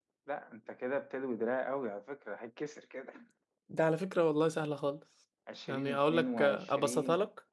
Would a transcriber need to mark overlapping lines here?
Yes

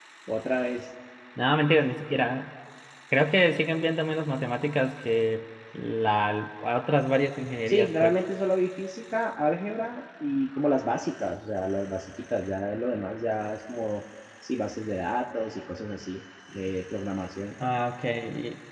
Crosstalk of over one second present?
No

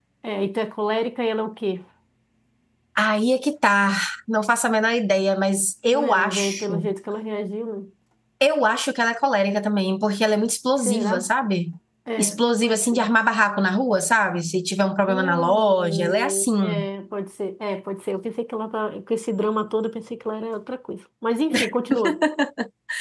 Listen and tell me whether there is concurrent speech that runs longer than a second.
Yes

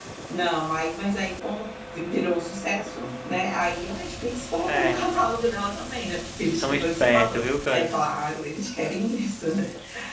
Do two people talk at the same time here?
Yes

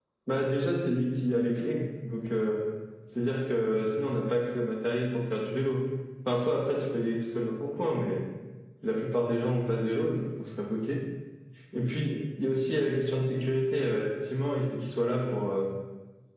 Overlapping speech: No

